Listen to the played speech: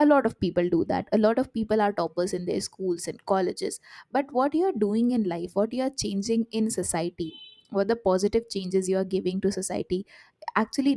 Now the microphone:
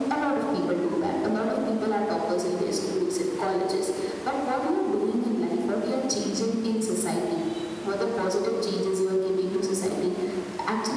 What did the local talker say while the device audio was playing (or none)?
none